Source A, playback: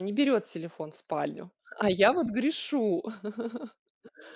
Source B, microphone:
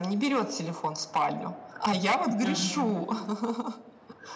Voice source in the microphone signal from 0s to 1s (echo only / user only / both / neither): echo only